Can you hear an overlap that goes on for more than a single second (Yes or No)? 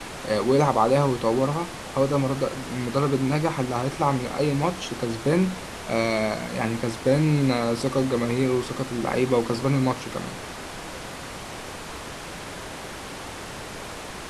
No